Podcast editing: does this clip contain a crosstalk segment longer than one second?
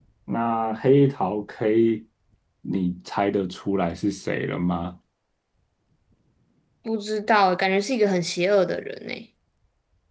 No

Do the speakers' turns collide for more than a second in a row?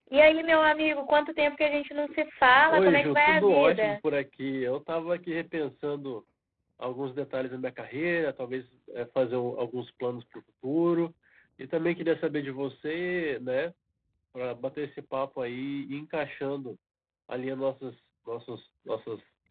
Yes, from 2.7 s

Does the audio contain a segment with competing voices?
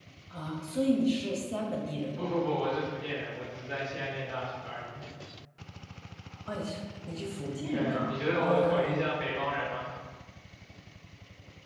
Yes, from 7.7 s

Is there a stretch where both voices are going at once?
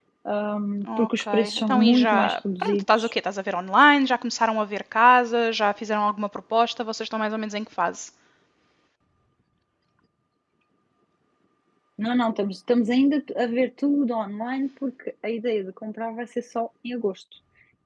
Yes, from 0.8 s

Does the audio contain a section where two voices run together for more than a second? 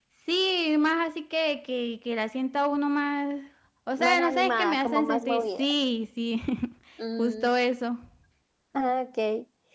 Yes, from 4.0 s

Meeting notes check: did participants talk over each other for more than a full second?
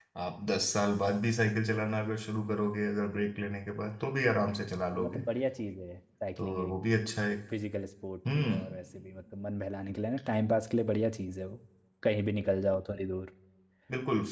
No

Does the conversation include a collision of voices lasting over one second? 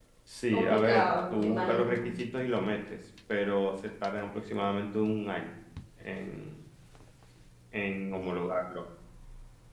Yes, from 0.5 s

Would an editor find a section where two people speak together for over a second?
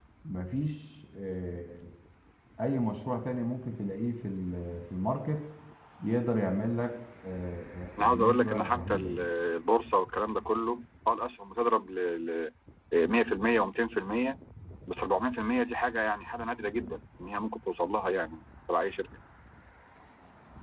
Yes, from 8.0 s

